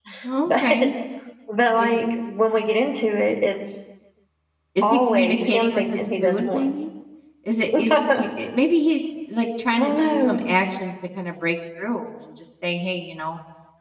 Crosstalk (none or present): present